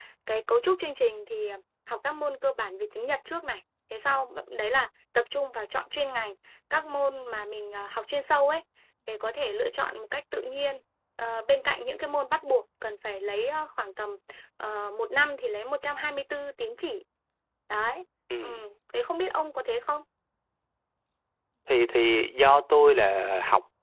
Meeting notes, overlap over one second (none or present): none